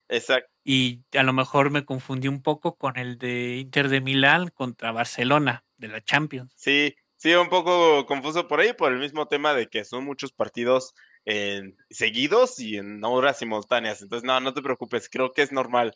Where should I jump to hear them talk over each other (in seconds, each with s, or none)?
none